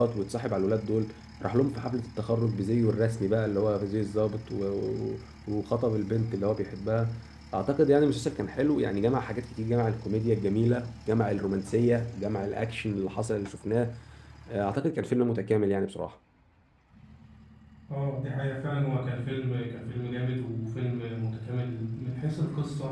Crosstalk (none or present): none